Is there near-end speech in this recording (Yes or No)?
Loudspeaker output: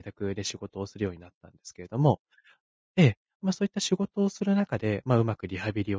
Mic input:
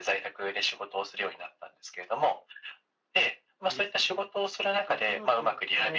Yes